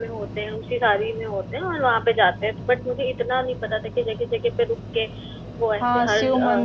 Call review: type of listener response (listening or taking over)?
taking over